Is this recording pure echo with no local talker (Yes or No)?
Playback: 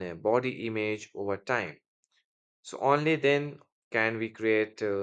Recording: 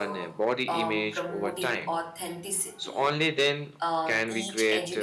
No